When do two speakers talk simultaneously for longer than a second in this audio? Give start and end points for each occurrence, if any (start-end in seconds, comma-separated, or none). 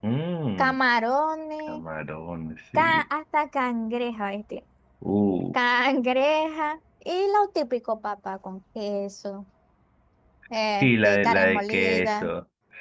10.8-12.3